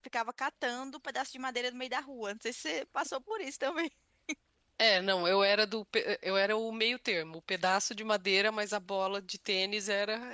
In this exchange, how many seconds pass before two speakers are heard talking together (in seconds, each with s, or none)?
none